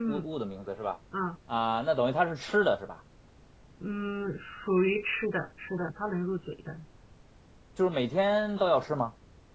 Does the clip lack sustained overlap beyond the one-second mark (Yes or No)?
Yes